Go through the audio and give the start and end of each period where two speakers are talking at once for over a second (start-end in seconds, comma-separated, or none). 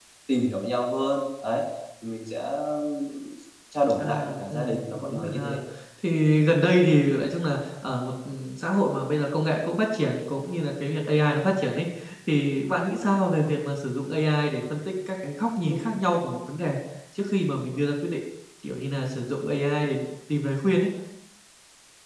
4.0-5.6